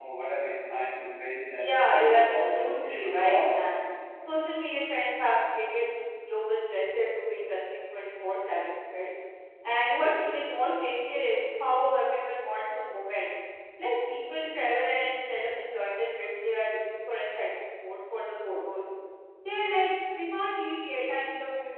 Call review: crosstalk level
present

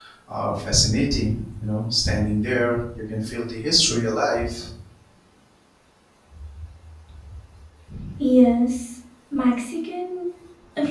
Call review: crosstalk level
none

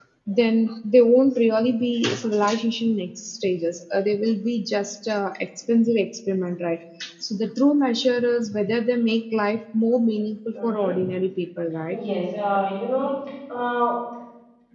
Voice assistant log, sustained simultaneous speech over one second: none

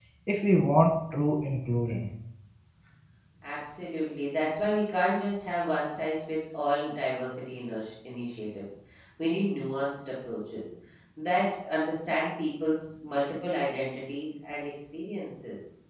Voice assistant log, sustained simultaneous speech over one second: none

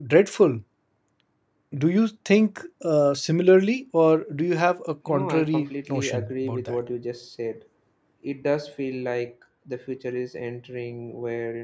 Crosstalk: present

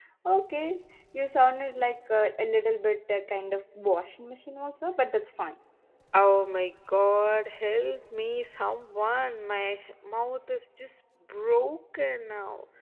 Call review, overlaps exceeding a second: none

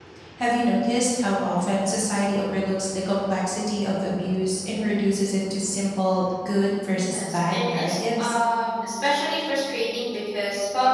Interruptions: present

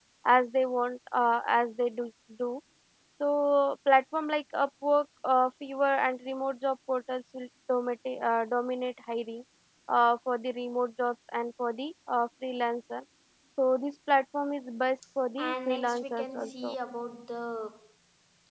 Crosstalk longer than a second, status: present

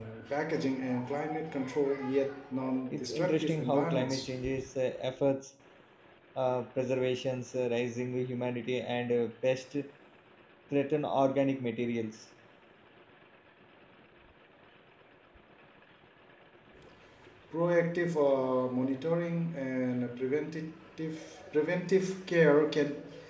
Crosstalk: present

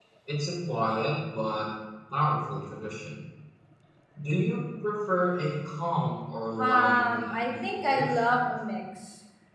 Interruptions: present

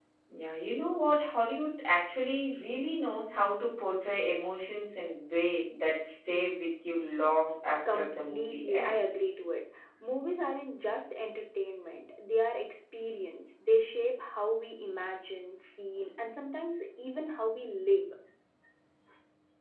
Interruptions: present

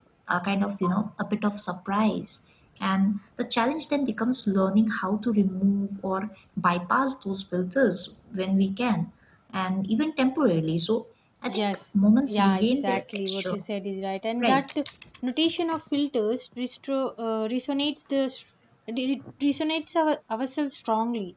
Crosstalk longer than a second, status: present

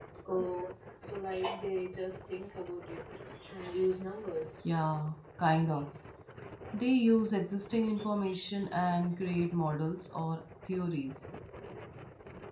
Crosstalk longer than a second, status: none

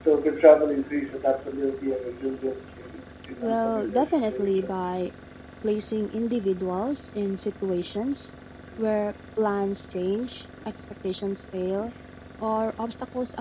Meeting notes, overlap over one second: present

